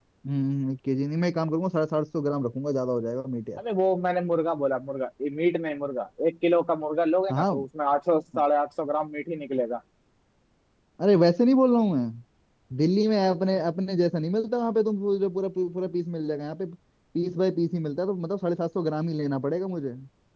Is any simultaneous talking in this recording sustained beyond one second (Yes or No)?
No